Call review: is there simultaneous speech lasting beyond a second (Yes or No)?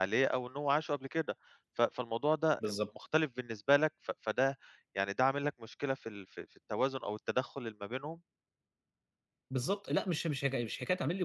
No